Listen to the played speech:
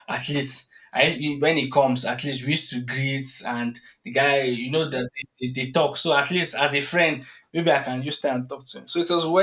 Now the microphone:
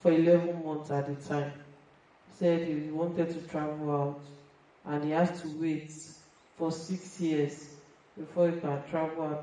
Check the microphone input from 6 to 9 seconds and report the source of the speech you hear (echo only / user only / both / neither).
user only